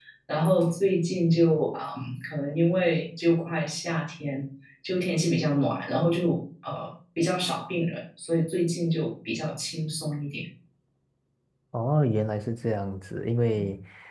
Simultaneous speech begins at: none

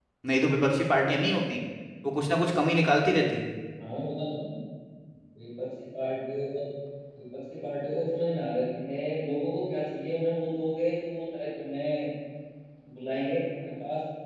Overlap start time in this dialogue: none

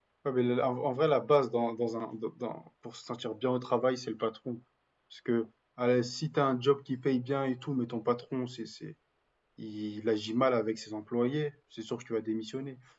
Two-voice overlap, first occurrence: none

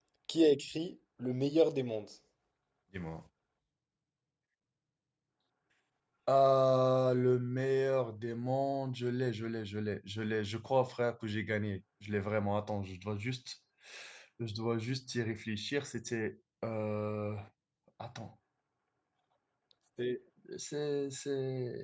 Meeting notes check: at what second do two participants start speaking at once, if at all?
none

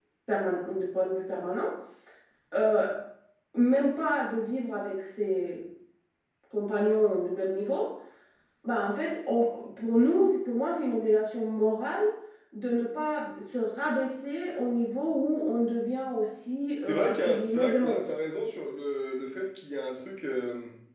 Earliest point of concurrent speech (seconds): 17 s

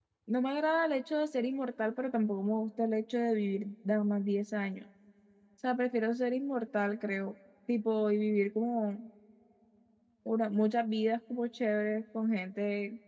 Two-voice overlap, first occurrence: none

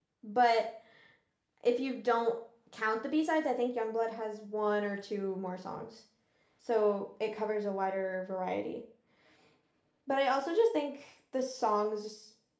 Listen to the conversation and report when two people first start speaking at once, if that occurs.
none

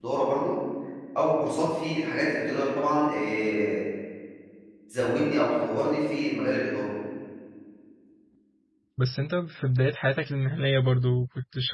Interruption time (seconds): none

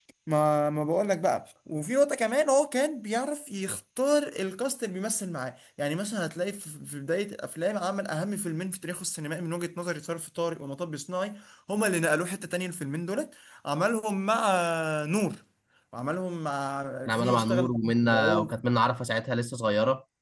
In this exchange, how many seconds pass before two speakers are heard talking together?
17 s

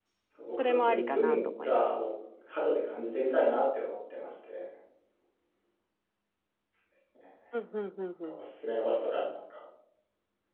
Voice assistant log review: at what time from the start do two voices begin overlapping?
1 s

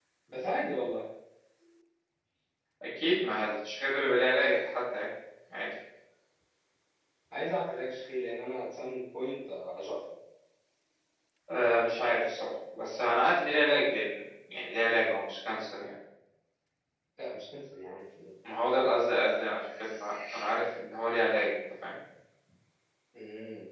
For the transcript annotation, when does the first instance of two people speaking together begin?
none

